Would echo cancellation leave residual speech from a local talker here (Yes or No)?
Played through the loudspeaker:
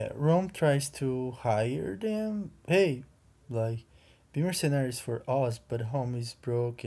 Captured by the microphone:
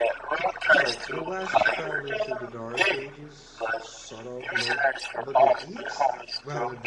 Yes